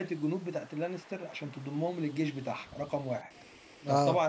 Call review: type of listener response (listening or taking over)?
listening